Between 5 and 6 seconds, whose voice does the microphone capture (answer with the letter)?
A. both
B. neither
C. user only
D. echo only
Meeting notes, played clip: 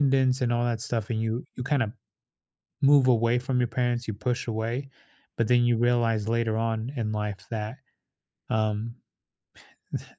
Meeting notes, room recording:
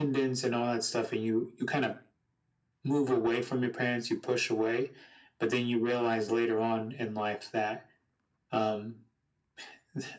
D